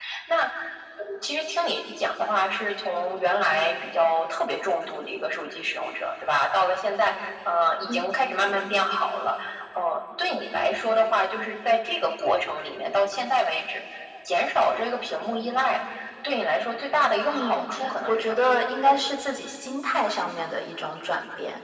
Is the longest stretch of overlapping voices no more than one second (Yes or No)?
Yes